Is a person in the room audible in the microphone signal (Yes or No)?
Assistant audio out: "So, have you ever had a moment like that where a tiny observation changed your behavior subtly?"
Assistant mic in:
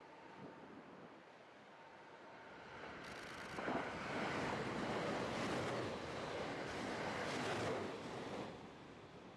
No